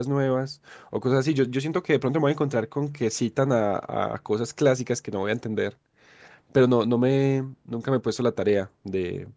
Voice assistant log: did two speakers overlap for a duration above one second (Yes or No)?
No